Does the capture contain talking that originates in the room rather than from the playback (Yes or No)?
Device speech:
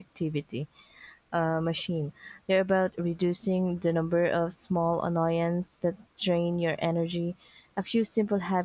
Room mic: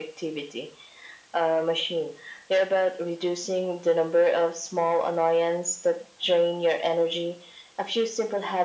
No